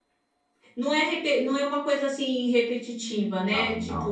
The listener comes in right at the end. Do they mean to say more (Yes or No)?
No